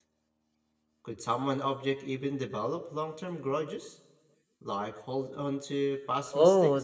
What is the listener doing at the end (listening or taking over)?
taking over